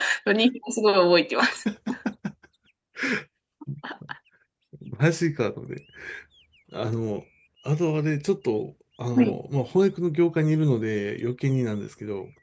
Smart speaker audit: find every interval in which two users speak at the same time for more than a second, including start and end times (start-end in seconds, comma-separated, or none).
none